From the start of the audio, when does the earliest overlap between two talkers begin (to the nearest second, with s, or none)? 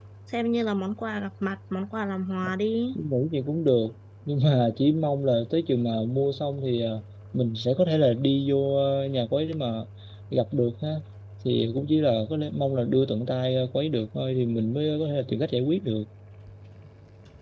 none